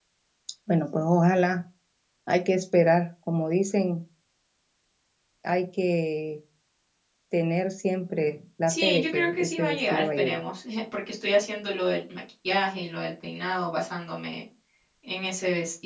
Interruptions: present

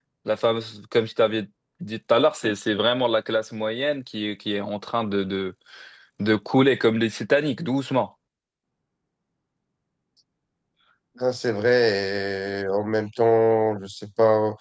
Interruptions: none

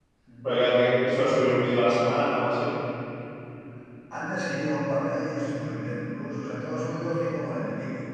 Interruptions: none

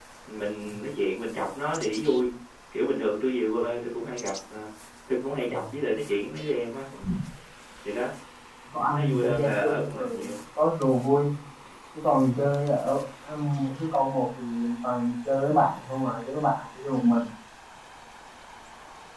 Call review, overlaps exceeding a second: present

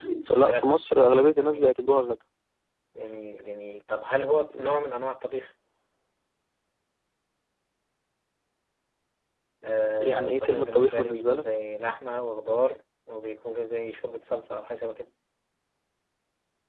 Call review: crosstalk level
present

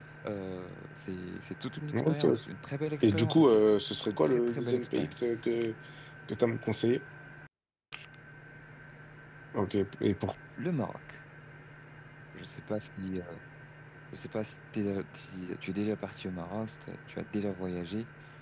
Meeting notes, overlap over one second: present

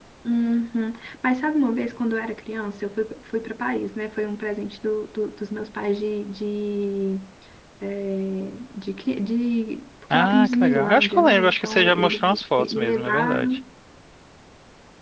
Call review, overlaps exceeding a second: present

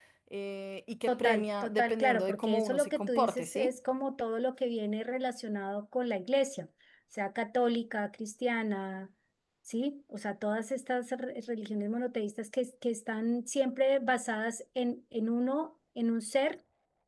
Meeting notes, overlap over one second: present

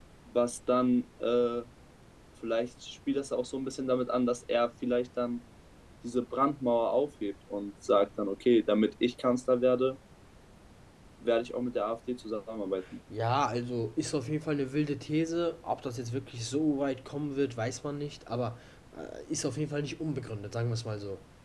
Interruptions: none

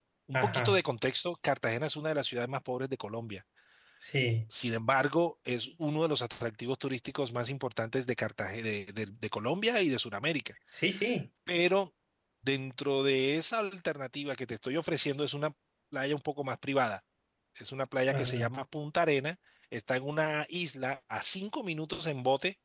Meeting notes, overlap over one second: none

